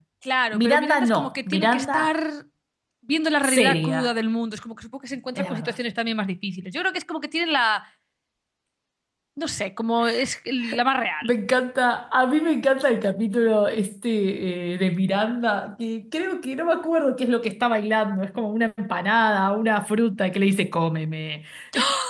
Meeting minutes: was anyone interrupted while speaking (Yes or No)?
Yes